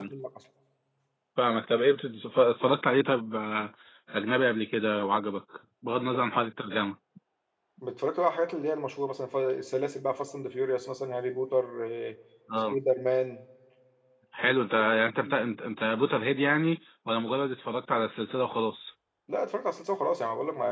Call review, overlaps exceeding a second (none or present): none